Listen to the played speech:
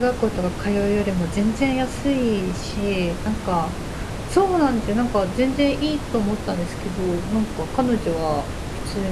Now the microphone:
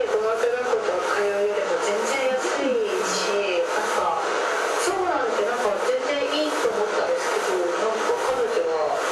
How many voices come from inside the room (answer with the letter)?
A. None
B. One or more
B